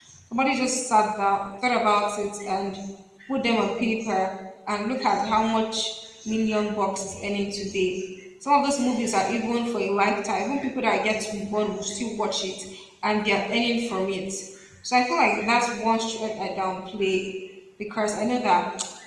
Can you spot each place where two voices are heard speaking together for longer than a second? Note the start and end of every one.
none

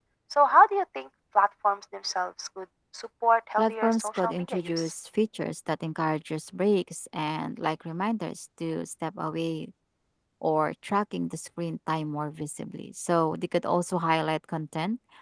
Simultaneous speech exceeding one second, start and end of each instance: 3.6-4.9

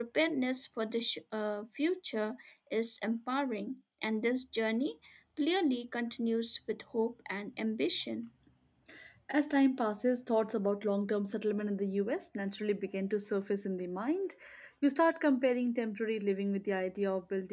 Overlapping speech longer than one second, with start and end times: none

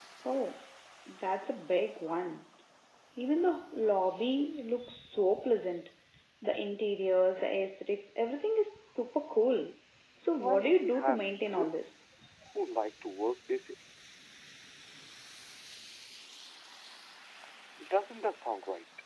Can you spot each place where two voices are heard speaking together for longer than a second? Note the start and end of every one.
10.4-11.7

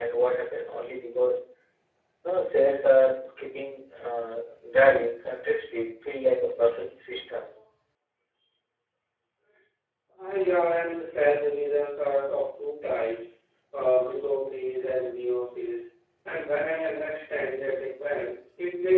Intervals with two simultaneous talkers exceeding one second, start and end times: none

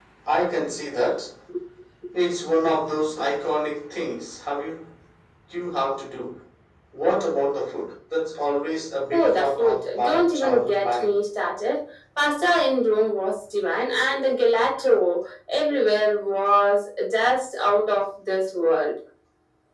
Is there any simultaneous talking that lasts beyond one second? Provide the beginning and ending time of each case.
9.1-11.2

